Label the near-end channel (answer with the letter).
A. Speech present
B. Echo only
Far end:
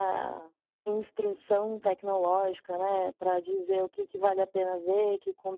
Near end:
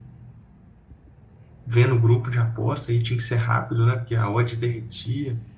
A